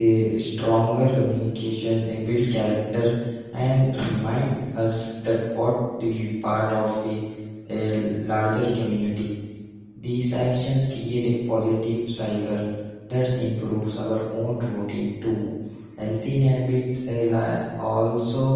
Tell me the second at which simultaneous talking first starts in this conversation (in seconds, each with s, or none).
none